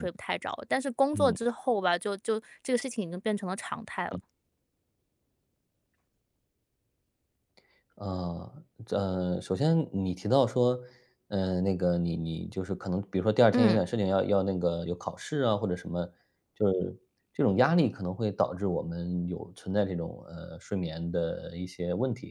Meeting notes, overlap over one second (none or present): none